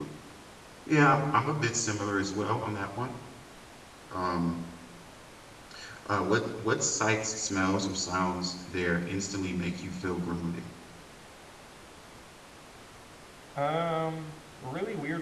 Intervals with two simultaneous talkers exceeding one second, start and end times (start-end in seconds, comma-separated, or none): none